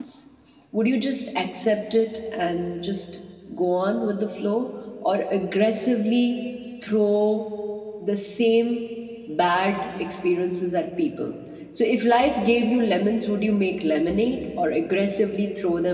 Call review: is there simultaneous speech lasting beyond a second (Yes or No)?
No